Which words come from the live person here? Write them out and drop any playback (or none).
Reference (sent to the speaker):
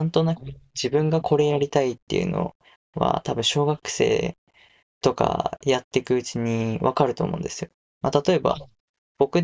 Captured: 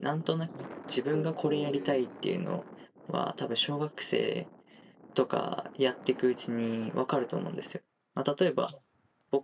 あの高校で、